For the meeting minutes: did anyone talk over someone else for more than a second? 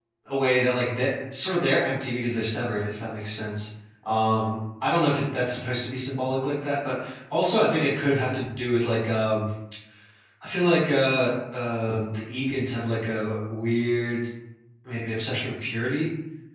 No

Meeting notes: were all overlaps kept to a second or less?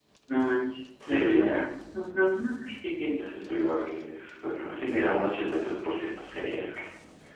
Yes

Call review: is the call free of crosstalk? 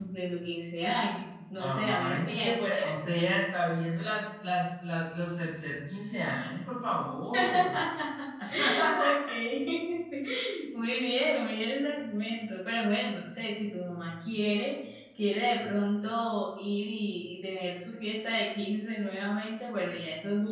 No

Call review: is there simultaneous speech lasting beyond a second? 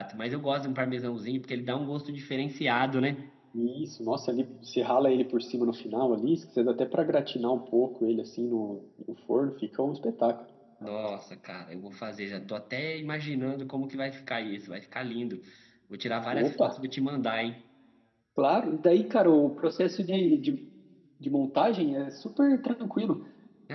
No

